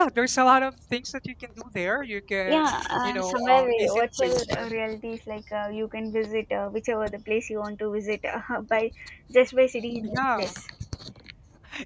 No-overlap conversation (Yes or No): No